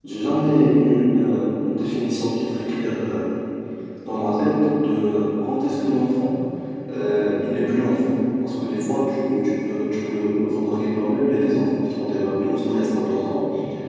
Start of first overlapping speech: none

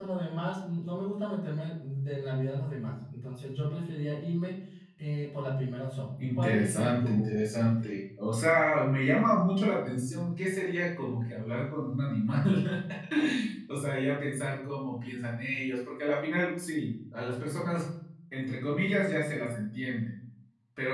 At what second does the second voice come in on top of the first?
6.2 s

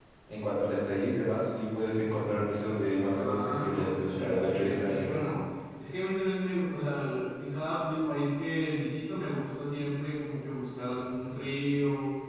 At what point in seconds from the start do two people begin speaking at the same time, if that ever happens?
3.1 s

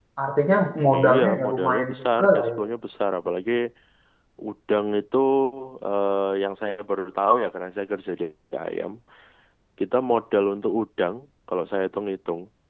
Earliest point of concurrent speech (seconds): 0.9 s

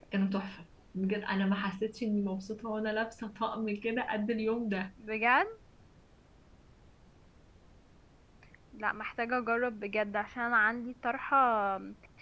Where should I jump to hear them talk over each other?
none

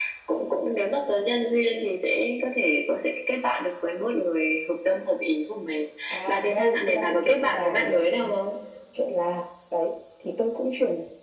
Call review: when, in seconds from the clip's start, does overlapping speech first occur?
6.1 s

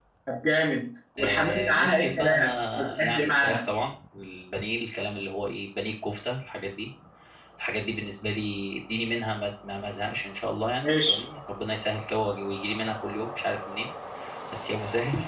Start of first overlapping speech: 1.2 s

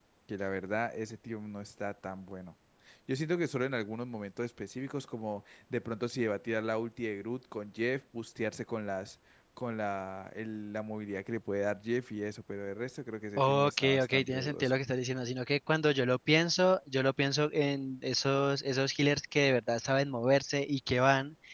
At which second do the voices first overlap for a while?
13.4 s

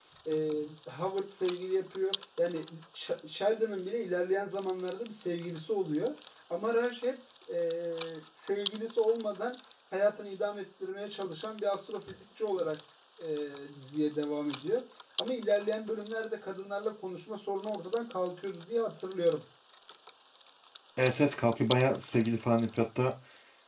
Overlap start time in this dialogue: none

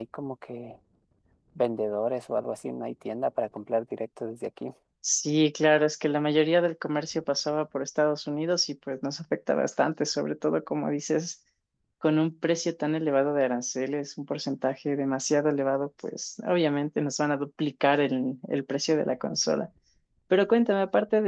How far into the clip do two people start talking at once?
none

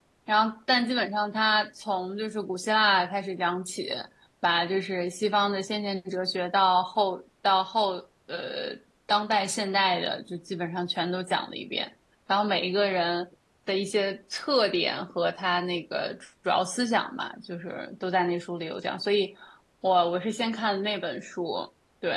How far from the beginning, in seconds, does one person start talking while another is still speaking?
none

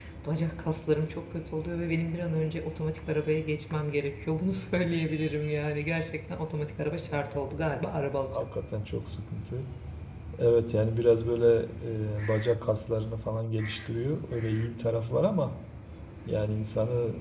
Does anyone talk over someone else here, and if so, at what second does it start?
6.6 s

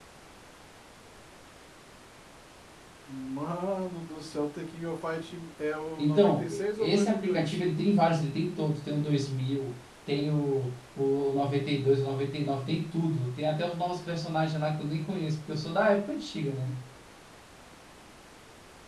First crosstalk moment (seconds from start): 6.0 s

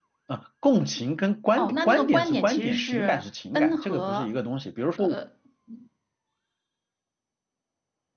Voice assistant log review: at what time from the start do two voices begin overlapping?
1.5 s

